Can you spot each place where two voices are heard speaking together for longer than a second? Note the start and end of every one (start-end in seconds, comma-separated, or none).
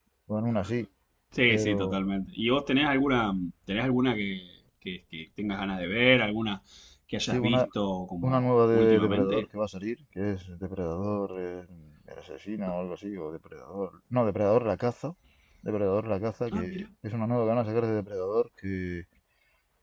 8.2-9.4